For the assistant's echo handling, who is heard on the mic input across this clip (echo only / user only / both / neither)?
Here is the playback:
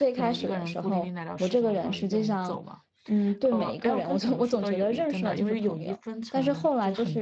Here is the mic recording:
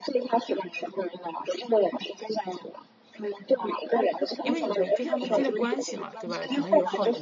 both